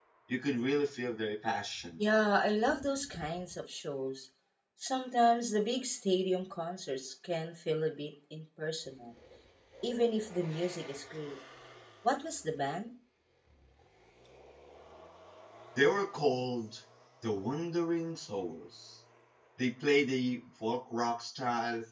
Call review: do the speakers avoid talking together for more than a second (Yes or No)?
Yes